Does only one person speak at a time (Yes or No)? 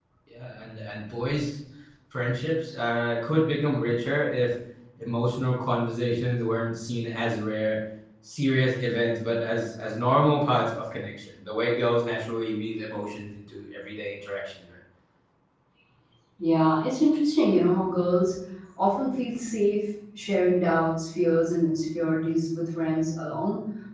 Yes